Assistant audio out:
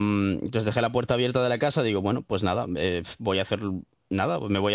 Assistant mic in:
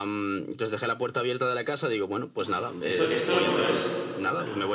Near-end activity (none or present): present